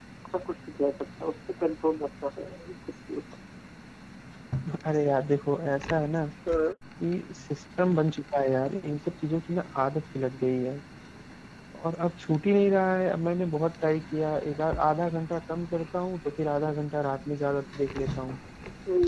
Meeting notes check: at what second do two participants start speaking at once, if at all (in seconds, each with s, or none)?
none